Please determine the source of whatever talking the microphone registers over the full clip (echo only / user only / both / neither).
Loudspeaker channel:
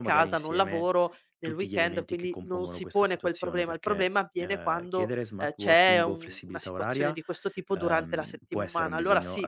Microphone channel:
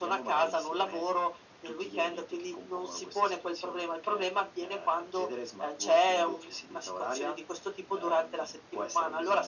echo only